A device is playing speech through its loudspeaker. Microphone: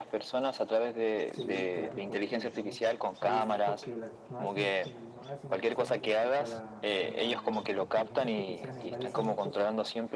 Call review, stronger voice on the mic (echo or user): echo